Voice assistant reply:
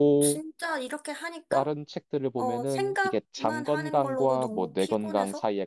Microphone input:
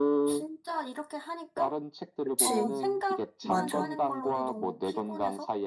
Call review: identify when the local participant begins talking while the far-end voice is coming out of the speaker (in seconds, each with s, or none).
2.2 s